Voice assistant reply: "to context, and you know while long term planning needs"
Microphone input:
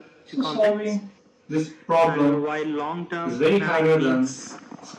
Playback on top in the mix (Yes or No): No